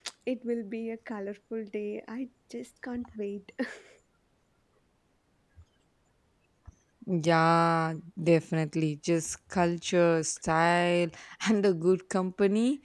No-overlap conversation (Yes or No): Yes